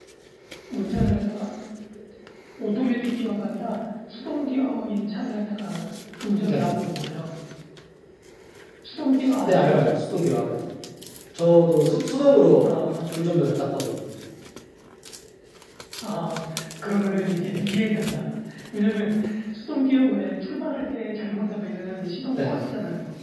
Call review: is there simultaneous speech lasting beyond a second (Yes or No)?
No